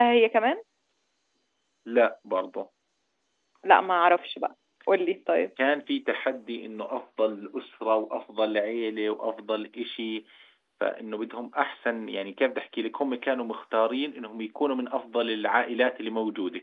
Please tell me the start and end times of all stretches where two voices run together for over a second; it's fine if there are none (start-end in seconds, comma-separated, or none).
none